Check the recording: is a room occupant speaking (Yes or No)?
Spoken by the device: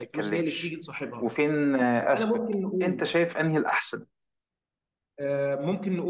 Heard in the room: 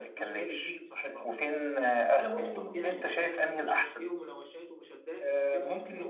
Yes